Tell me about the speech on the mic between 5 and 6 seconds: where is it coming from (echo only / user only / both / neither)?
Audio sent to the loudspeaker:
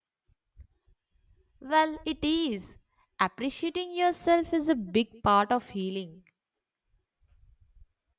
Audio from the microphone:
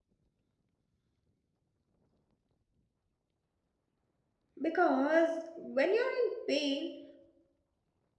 user only